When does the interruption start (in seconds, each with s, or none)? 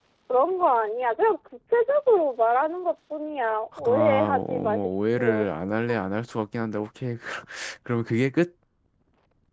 3.7 s